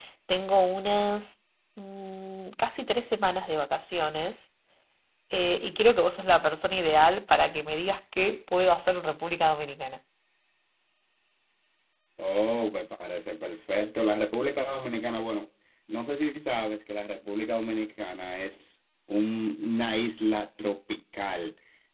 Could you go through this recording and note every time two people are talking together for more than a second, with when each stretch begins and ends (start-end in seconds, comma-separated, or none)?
none